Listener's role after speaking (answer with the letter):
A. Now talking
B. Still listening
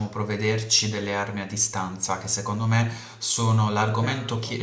B